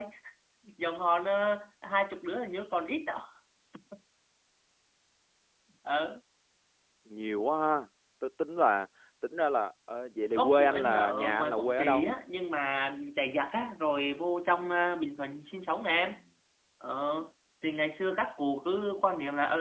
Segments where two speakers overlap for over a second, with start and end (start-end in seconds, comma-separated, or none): 10.3-12.1